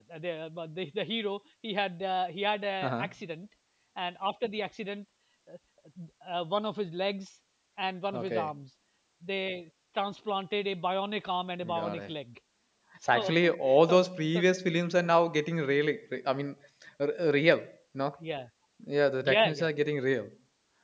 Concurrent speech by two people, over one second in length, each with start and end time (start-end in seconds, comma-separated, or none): 13.2-14.4